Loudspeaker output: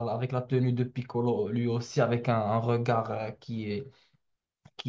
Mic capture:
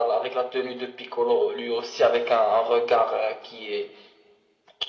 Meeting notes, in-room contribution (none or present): none